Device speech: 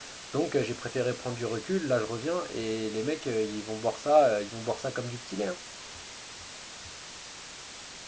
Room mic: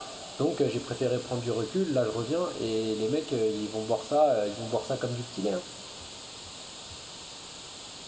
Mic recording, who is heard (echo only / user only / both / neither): echo only